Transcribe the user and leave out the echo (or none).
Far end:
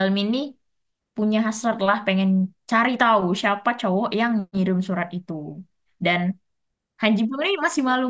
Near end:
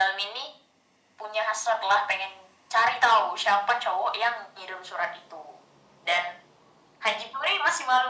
none